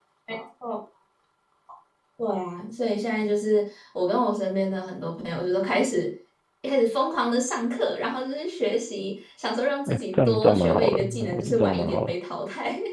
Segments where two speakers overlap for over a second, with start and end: 9.9-12.1

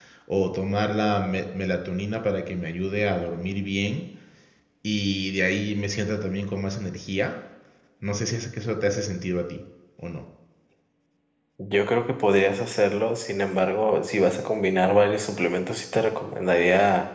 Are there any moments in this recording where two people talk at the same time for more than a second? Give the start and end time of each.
none

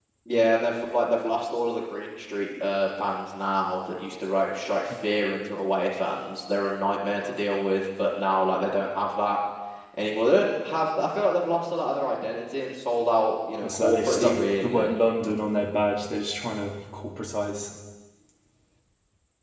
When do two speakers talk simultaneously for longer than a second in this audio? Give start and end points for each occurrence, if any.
13.6-14.9

